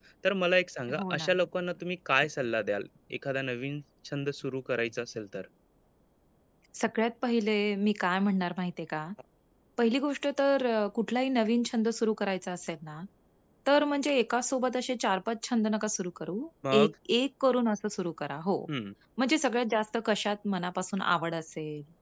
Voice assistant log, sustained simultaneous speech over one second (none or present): none